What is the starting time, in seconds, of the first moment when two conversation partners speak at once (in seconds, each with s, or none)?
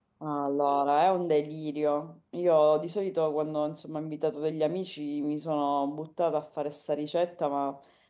none